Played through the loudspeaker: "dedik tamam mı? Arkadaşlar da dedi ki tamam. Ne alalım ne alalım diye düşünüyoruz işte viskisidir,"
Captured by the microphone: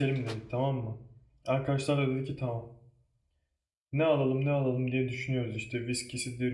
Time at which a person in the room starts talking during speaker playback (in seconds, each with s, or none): none